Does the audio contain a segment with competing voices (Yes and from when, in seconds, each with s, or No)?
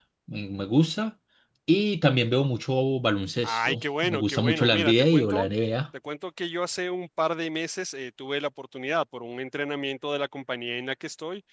Yes, from 3.4 s